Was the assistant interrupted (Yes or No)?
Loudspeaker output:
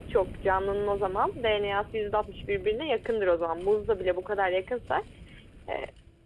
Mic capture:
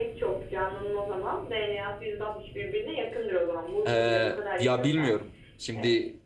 Yes